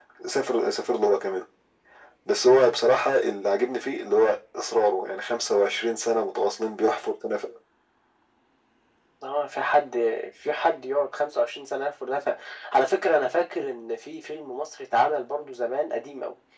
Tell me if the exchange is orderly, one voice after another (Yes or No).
Yes